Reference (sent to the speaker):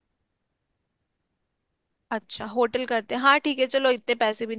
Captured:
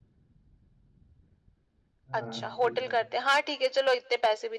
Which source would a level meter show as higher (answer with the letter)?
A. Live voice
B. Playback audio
B